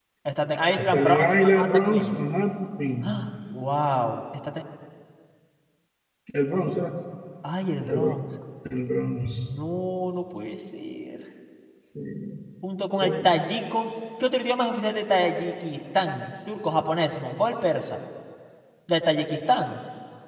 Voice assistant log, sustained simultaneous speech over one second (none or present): present